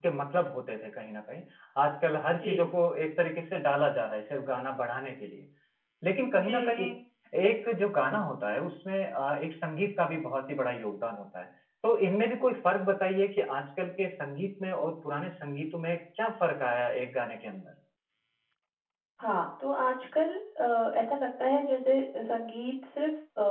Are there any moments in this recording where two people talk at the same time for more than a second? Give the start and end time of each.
none

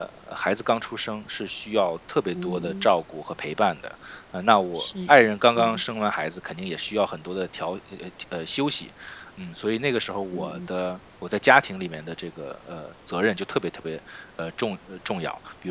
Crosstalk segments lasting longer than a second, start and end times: none

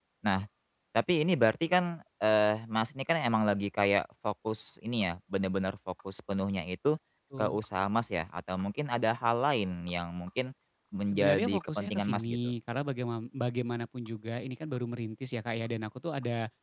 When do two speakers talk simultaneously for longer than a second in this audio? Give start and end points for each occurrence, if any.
11.1-12.4

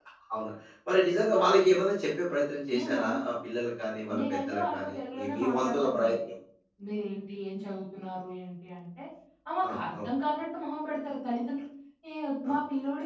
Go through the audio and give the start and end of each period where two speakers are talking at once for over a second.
4.2-6.2

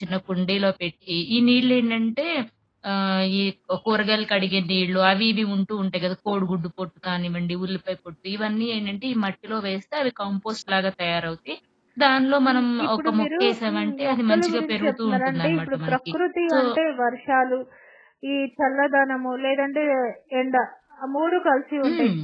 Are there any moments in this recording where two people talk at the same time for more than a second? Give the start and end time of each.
12.4-16.1

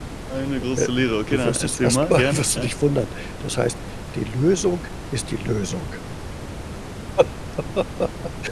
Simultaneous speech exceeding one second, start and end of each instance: 1.3-2.7

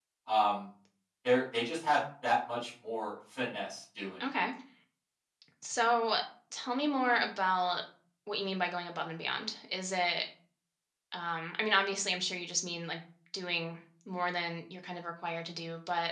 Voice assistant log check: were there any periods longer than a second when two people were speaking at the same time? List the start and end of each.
none

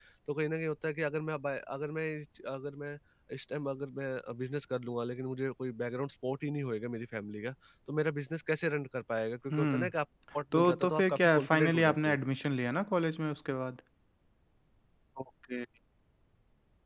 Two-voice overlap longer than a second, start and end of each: 10.5-12.2

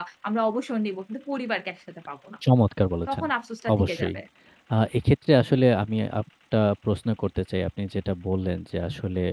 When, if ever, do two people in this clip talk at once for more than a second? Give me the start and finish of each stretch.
none

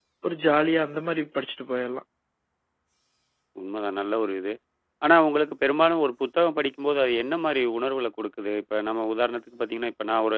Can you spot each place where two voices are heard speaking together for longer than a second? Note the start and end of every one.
none

